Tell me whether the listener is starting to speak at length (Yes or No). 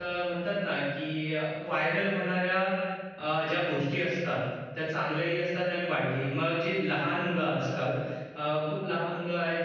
No